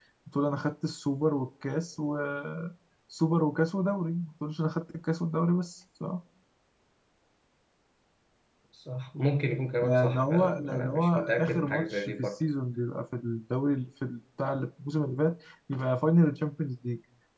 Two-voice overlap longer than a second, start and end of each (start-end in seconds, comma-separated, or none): 9.8-12.4